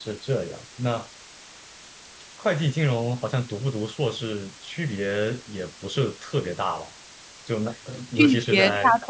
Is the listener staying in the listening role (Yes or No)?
No